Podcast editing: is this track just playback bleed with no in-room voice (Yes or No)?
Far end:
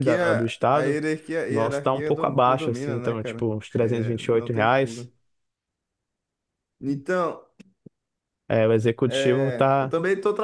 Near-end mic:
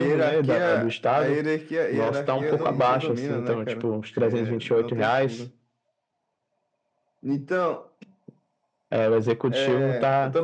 No